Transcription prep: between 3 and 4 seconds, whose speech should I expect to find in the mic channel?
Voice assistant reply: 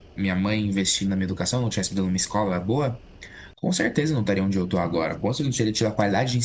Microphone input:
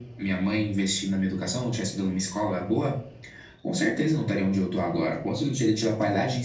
echo only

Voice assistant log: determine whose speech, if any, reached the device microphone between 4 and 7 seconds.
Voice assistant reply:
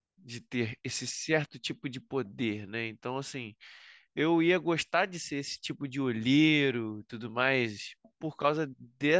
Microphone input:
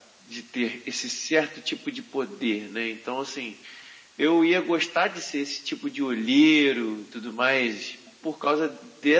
echo only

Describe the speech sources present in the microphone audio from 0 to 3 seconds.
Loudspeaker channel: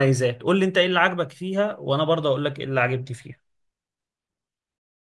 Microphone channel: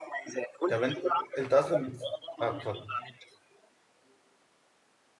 both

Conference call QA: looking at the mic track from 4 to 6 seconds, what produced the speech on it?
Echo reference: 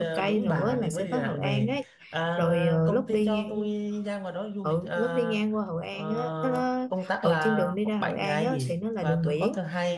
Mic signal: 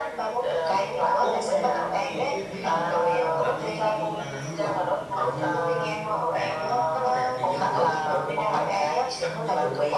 both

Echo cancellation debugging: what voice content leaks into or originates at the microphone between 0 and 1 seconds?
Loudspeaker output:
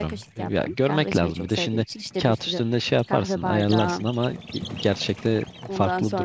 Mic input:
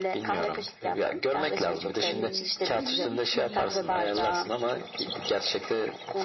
echo only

